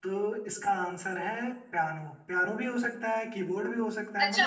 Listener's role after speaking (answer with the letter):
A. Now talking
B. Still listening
A